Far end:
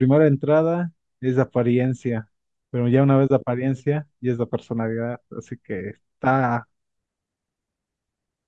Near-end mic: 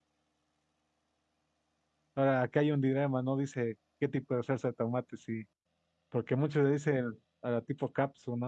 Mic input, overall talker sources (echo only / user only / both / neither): user only